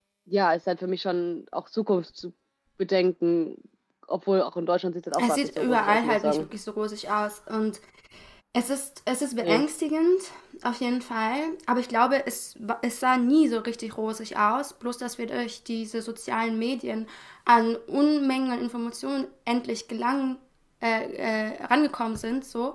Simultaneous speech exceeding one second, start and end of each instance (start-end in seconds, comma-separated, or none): 5.2-6.5